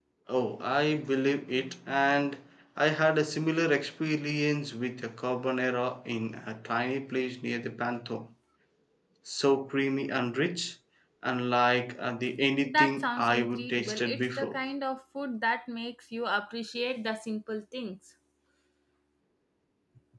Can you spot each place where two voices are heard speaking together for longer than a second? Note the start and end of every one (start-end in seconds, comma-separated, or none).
12.6-14.6